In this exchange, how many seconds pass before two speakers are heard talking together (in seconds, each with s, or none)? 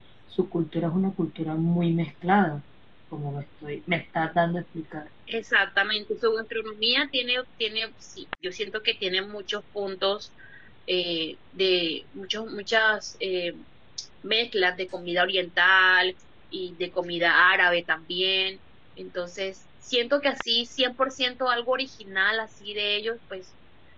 none